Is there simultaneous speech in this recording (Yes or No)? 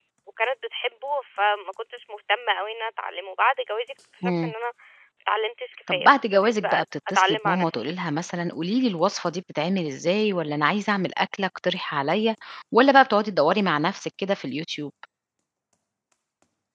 Yes